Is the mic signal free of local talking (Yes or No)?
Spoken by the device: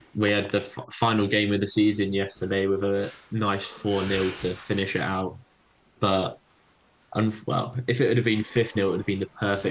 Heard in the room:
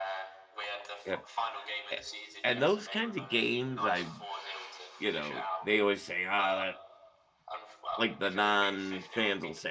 No